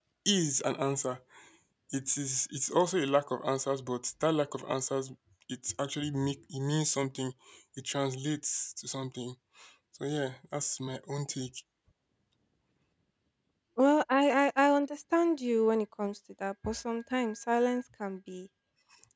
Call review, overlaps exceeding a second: none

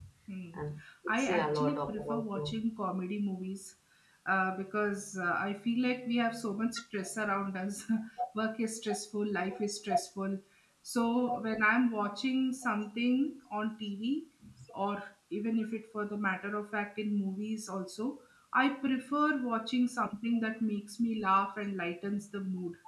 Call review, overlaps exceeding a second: present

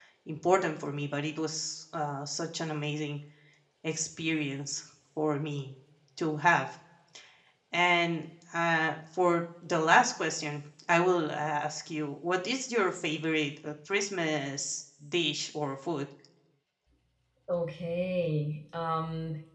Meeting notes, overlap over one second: none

